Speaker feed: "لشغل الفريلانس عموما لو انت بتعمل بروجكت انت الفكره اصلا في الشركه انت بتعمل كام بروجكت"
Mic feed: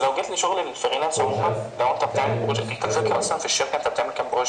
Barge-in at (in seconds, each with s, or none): 1.2 s